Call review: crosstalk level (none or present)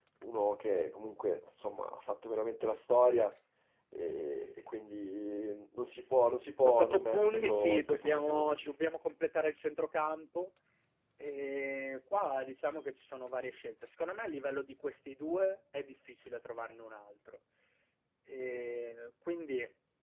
present